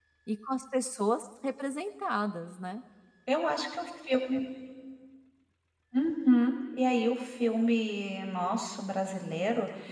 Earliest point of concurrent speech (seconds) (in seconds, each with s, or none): none